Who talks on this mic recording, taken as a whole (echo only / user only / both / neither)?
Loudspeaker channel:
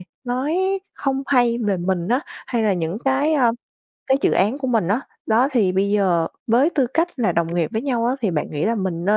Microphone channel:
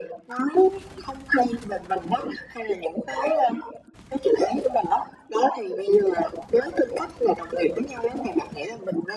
echo only